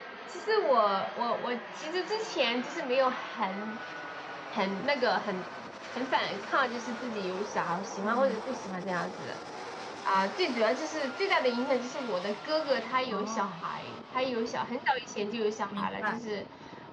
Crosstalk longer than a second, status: none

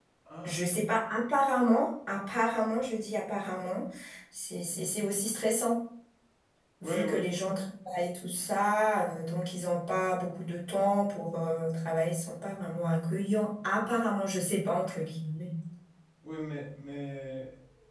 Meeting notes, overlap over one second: none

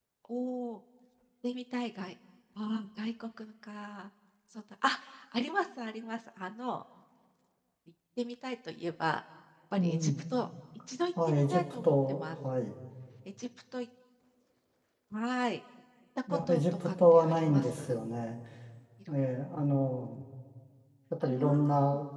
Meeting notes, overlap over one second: present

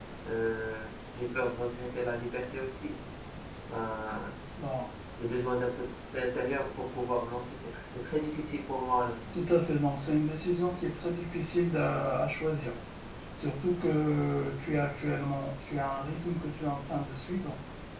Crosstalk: none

